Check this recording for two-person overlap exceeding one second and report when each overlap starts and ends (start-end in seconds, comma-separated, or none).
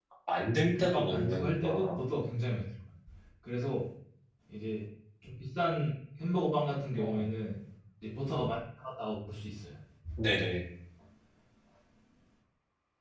0.8-2.0